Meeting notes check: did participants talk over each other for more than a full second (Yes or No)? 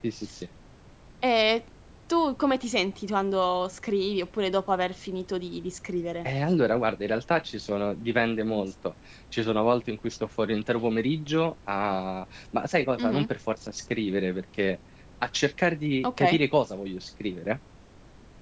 No